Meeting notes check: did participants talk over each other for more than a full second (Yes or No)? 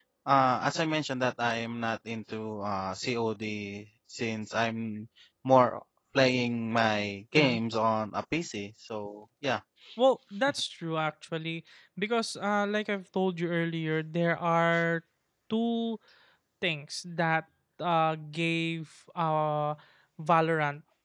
No